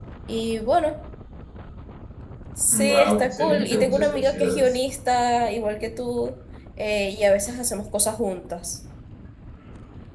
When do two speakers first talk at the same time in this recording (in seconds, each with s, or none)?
2.7 s